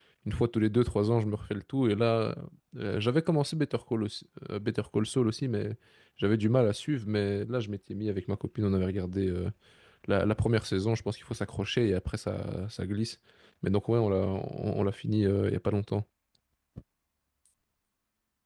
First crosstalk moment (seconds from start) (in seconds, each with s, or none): none